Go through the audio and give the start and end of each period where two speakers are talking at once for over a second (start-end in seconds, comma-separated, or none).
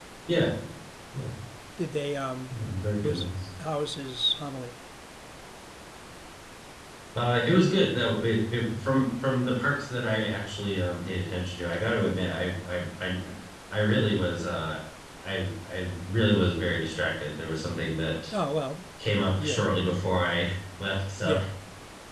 none